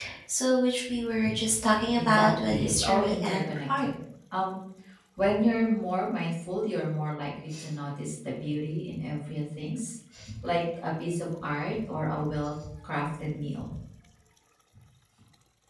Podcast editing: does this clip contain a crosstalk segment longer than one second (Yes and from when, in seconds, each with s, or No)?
Yes, from 1.9 s